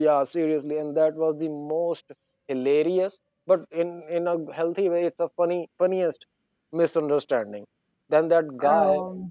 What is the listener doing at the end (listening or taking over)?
listening